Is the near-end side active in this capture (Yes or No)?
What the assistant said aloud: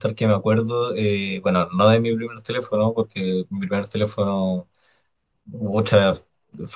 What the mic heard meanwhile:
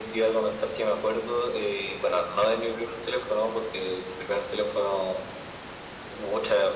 No